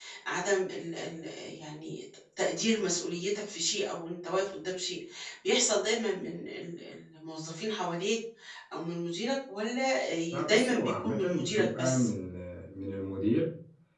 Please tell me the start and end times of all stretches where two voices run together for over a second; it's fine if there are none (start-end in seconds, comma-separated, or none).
10.3-12.1